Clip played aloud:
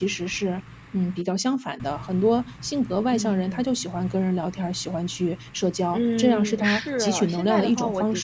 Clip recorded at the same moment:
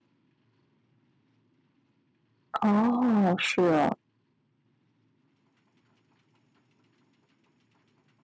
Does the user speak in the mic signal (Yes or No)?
Yes